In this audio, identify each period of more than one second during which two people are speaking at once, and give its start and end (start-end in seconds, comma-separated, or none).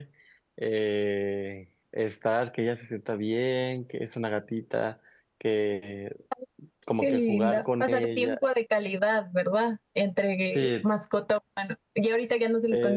7.0-8.4